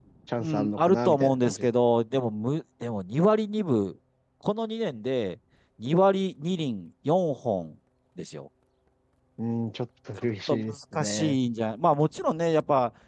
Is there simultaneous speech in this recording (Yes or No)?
Yes